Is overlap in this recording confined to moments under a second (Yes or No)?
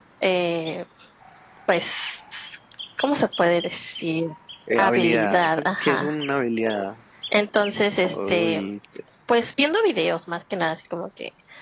No